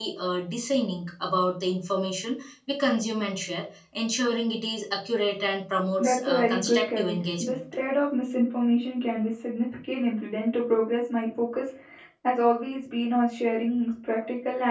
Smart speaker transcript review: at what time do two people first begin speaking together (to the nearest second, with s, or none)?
6 s